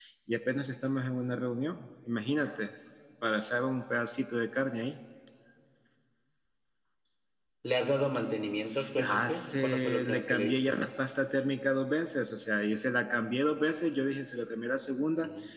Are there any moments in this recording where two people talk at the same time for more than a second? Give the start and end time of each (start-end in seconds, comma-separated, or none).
8.9-10.8